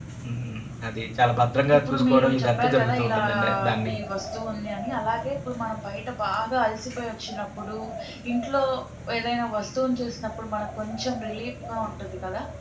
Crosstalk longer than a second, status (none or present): present